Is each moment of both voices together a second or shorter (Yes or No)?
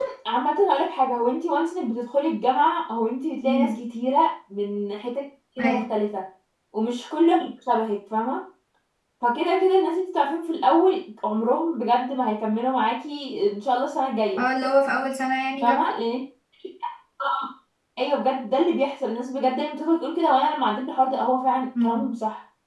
Yes